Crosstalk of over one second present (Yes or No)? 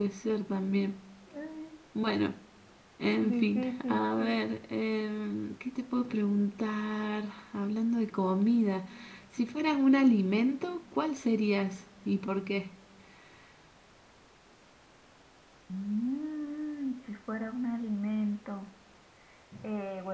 Yes